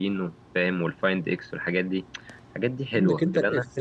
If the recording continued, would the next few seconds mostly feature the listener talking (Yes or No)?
Yes